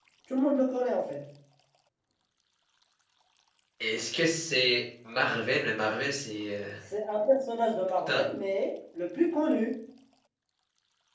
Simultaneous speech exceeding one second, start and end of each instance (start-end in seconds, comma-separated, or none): none